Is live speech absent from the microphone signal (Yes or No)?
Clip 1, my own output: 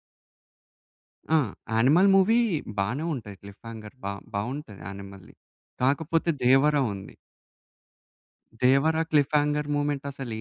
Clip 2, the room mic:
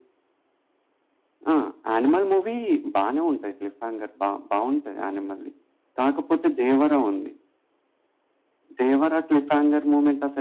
Yes